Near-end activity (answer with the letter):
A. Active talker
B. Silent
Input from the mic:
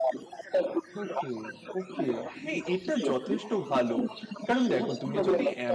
A